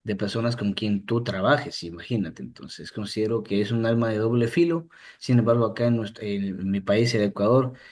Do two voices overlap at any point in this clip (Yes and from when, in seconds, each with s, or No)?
No